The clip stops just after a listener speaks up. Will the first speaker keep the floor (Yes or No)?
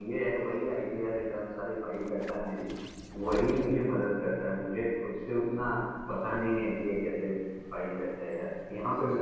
No